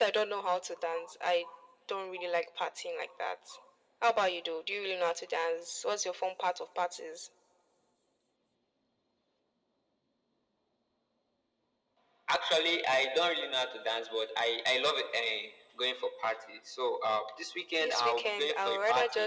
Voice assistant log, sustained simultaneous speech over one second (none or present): present